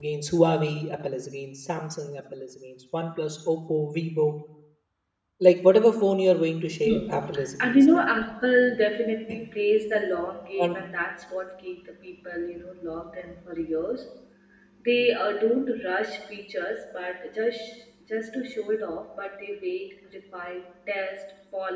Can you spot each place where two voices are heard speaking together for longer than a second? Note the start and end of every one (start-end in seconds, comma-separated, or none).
6.8-8.0